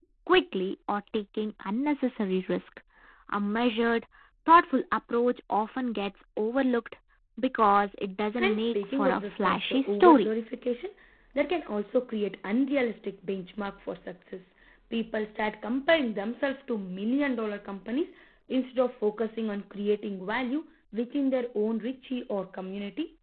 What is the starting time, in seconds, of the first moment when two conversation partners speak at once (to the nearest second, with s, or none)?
8 s